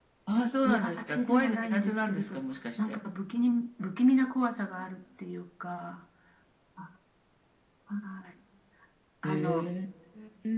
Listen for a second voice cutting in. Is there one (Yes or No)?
Yes